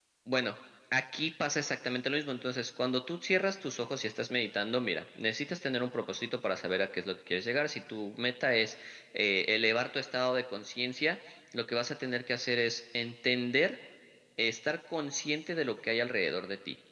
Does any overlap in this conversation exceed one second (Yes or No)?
No